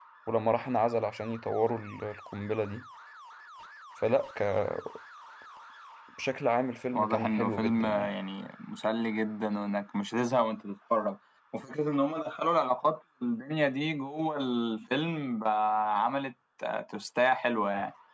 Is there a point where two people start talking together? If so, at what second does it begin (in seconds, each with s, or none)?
6.9 s